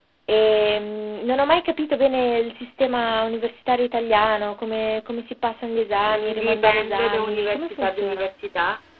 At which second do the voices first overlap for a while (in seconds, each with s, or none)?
6.0 s